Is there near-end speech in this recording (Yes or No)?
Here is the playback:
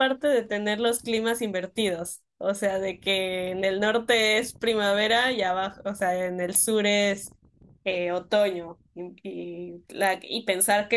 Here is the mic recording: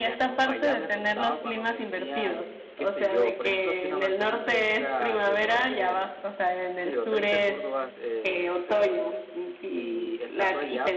Yes